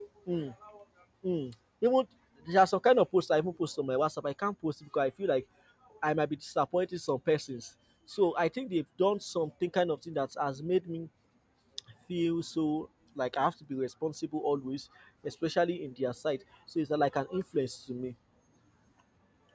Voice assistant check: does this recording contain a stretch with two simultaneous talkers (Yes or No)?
No